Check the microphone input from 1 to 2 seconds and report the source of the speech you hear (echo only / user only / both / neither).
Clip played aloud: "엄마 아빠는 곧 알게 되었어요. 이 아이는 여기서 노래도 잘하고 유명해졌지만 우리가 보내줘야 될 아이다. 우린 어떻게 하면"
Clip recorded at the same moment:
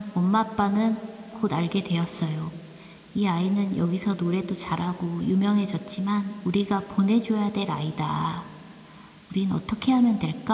echo only